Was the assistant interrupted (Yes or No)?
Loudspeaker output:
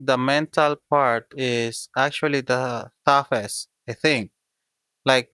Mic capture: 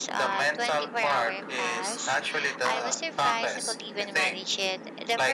Yes